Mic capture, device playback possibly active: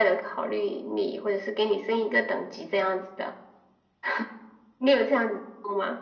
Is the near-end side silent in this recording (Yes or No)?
Yes